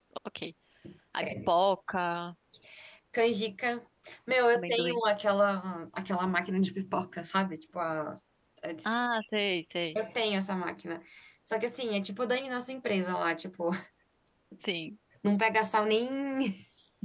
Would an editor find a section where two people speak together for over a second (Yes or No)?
No